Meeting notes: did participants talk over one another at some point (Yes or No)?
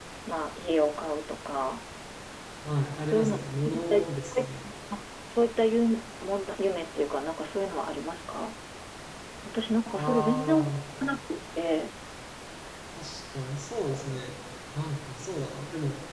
Yes